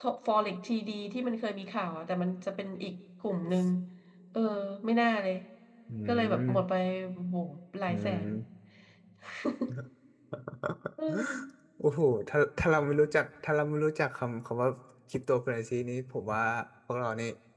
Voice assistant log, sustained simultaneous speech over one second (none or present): none